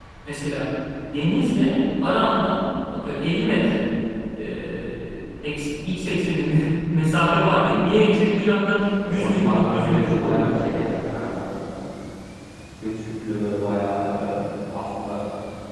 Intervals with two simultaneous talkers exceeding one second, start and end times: 9.1-10.6

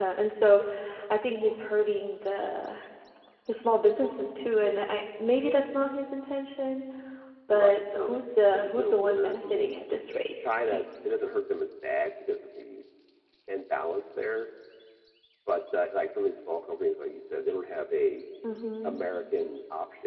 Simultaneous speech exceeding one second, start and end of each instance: 7.5-9.8

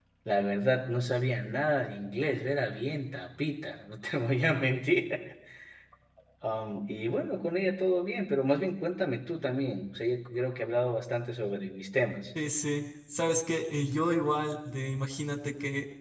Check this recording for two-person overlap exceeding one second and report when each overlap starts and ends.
none

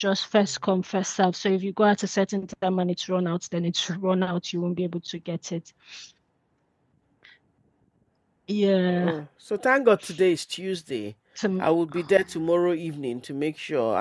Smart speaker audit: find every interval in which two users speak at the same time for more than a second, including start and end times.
none

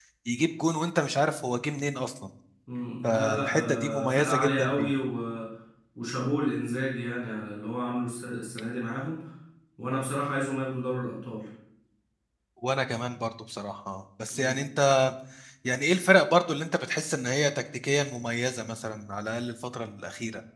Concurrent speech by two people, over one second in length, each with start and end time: 3.1-4.9

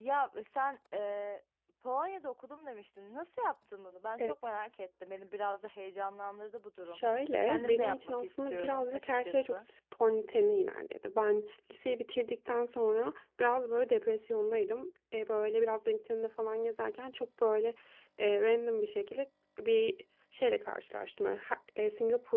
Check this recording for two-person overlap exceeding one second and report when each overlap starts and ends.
7.4-9.7

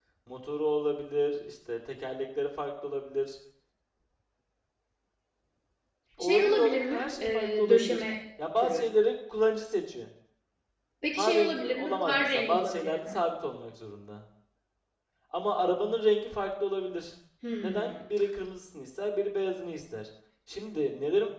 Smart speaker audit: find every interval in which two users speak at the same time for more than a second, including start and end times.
6.2-8.0, 11.2-13.2

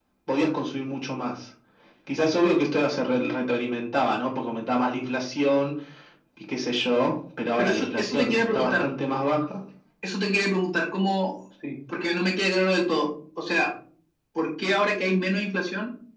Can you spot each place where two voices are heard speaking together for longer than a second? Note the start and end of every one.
7.6-8.9

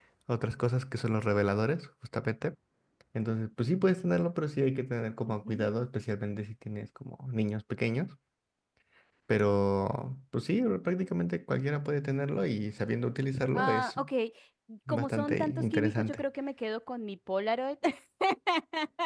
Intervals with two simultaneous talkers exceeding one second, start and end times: 14.9-16.2

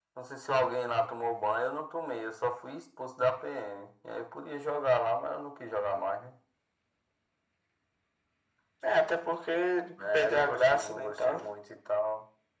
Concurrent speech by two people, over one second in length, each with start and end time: 10.1-11.4

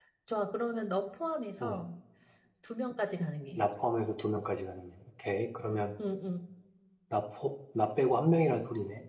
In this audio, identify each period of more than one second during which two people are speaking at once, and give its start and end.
none

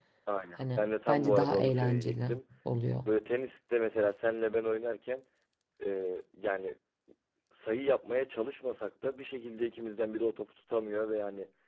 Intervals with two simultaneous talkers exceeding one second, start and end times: 0.6-2.4

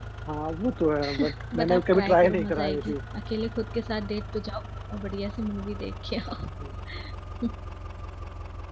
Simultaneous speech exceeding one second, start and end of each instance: 1.5-3.0

